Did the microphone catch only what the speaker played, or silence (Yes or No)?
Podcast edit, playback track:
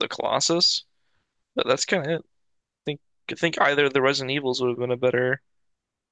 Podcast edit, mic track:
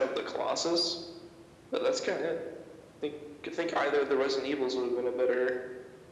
Yes